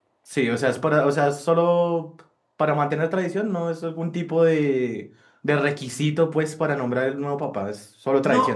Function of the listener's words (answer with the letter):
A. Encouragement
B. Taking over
B